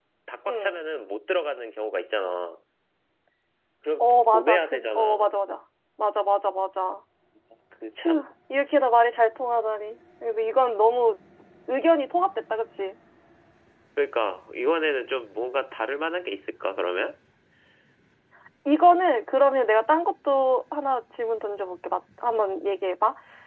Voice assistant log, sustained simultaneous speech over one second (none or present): present